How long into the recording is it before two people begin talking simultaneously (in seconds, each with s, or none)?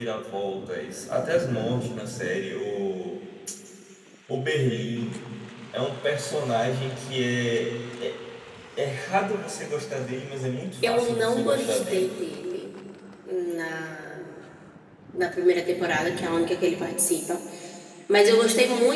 10.8 s